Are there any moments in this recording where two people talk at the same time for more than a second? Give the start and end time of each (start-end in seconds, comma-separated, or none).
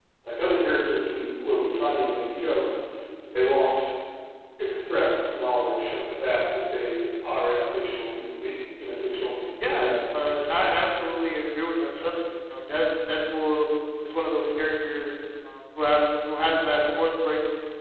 none